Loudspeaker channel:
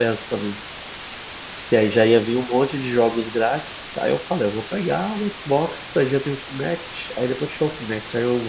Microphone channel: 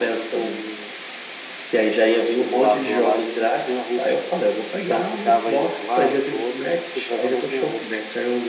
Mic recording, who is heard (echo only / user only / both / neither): both